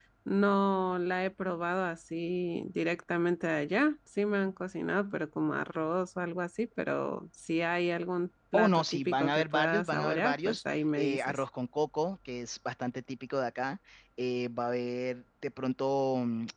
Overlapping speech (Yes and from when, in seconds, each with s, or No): Yes, from 8.5 s